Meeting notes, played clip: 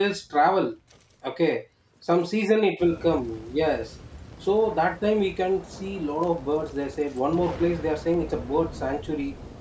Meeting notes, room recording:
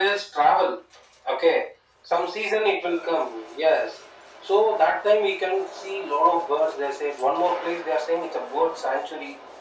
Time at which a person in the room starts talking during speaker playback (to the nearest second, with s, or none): none